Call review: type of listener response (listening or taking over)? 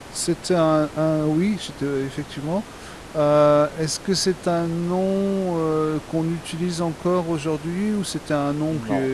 taking over